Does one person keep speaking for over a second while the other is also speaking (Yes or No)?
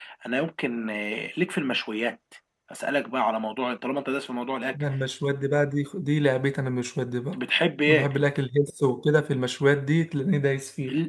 No